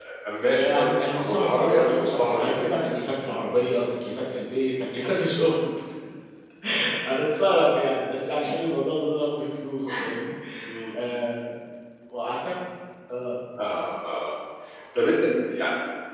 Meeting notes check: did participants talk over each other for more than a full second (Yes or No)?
Yes